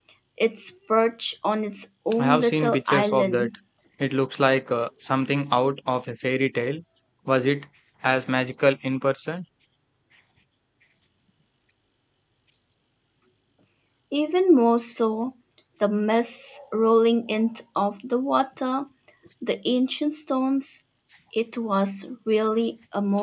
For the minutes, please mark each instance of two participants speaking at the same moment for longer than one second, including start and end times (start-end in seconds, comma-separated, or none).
2.2-3.5